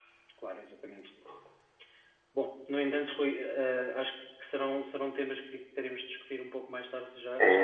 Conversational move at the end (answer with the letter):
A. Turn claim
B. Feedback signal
A